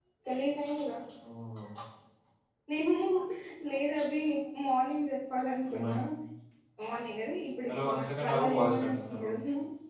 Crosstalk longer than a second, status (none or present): present